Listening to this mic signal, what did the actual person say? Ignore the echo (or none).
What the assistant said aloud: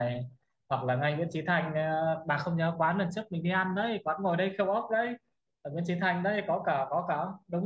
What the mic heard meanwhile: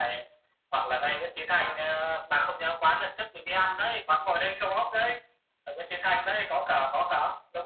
none